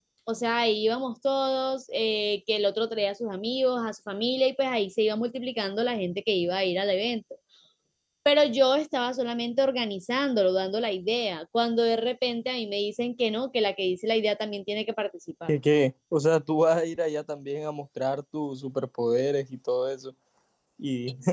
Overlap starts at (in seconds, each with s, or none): none